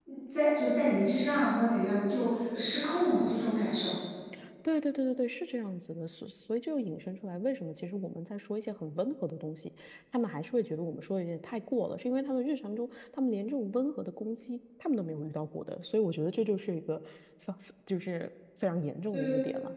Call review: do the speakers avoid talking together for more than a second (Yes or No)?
Yes